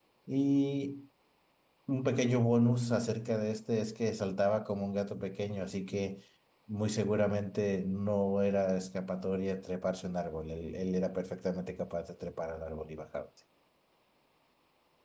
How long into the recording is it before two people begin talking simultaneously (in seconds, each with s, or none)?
none